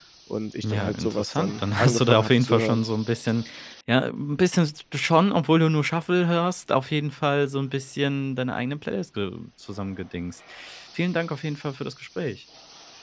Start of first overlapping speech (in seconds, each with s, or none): 0.6 s